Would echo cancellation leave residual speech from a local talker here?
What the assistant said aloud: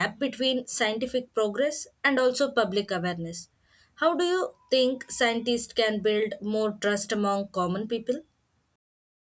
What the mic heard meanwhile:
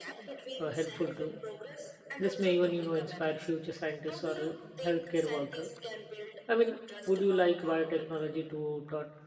Yes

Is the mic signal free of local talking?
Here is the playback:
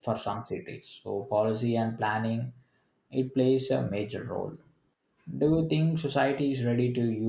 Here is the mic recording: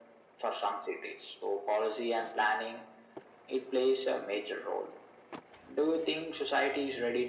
Yes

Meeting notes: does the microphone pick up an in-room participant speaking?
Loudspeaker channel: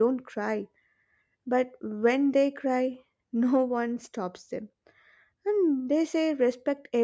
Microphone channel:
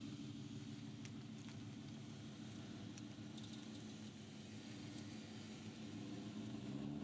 No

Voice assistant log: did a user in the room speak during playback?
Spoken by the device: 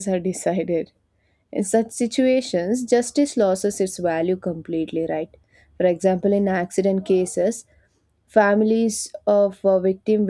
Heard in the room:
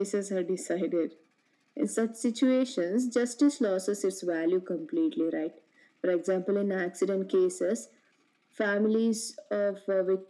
No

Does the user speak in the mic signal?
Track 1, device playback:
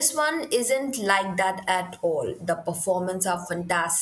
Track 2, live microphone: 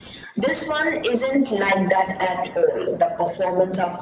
No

